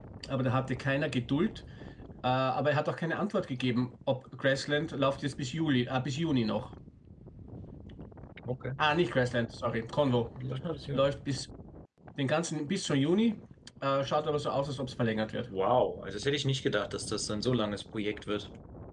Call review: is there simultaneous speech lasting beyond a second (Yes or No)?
No